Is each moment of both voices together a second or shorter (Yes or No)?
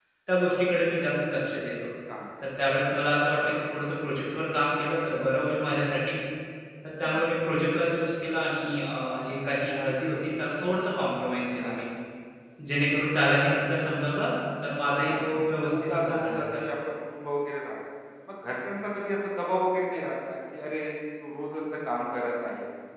No